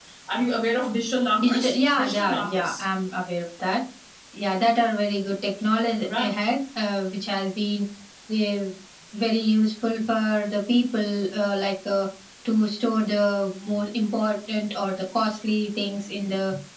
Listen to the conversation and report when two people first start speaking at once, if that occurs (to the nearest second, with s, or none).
1 s